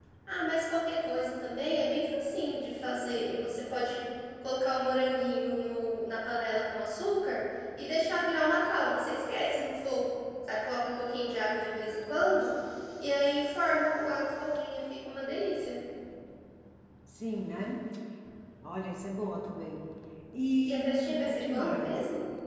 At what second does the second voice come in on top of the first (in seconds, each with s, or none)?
20.6 s